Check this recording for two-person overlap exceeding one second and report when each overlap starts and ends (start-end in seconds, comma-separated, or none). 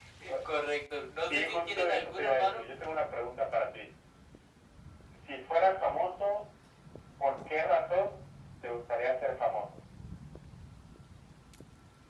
1.3-2.6